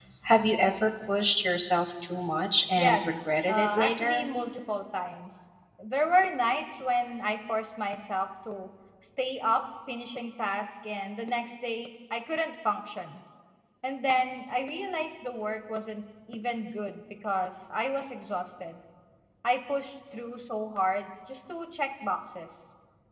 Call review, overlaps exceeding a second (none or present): present